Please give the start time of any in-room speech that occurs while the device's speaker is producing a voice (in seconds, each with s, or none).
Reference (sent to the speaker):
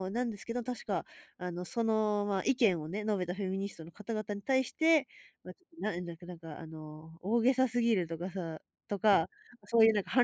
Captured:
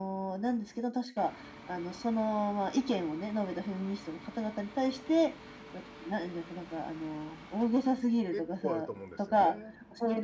8.3 s